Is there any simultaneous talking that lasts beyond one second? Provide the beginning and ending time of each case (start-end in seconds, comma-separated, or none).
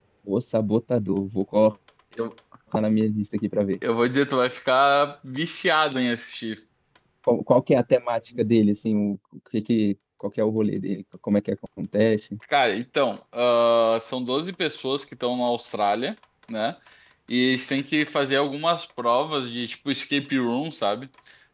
none